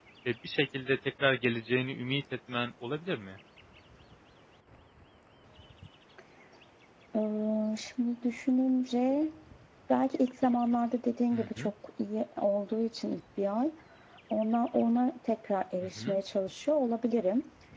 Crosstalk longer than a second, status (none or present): none